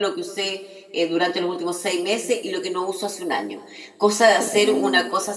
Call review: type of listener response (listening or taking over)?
listening